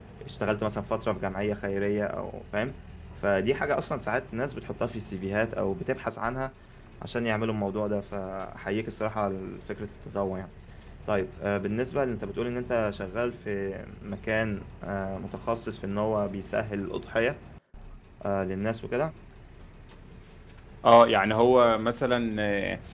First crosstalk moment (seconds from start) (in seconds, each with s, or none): none